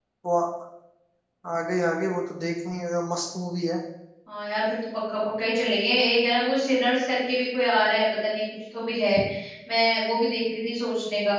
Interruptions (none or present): none